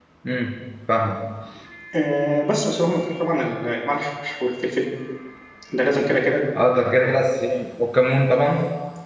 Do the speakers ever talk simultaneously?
No

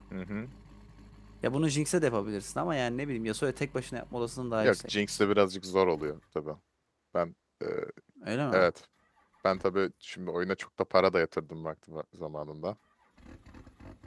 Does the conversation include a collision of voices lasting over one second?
No

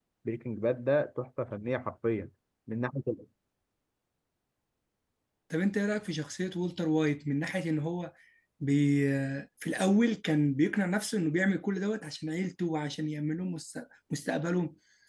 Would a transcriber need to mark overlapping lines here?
No

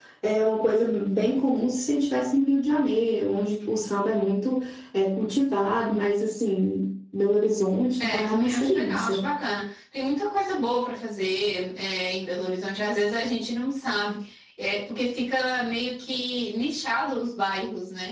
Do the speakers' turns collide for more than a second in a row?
Yes, from 8.0 s

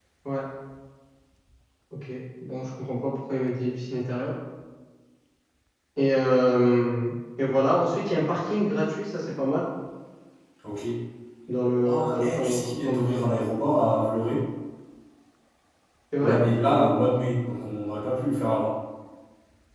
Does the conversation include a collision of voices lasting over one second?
Yes, from 11.8 s

